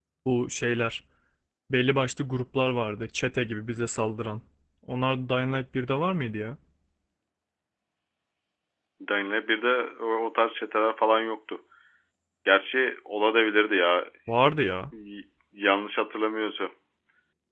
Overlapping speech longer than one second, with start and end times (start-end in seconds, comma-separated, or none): none